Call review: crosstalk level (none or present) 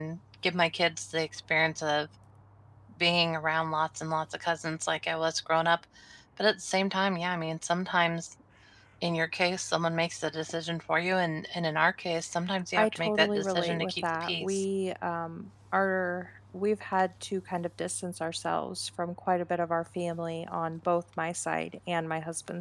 present